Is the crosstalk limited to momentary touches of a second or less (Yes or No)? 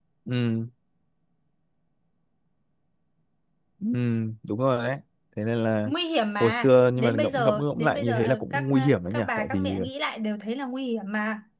No